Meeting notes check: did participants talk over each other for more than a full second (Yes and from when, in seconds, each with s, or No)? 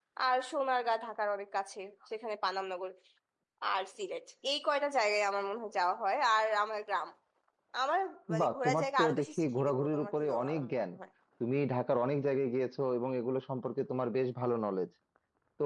Yes, from 8.4 s